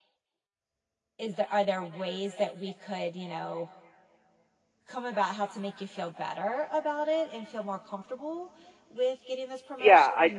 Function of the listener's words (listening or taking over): taking over